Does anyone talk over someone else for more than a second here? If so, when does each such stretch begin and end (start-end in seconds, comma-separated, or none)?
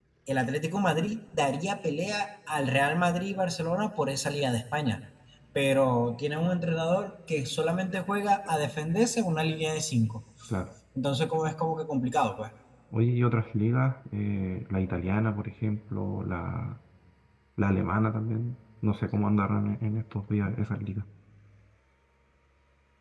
none